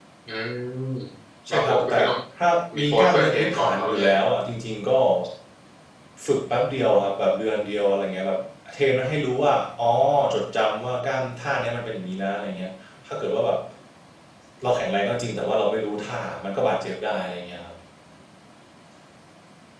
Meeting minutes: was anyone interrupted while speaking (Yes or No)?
Yes